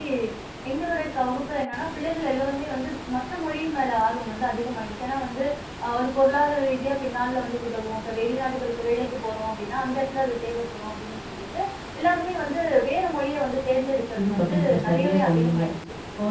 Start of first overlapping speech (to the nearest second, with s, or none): 14 s